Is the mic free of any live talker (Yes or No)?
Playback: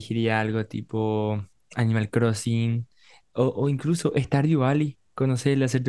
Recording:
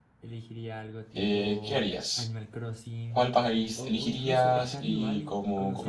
No